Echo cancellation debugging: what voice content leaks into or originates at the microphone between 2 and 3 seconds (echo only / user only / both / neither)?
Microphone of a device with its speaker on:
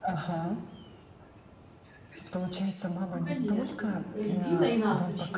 echo only